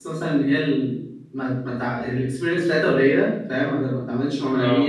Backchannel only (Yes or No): Yes